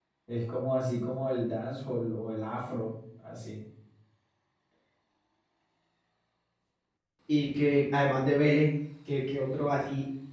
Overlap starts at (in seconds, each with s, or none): none